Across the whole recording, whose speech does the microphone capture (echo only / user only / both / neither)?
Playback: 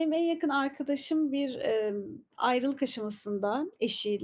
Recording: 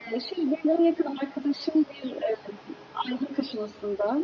echo only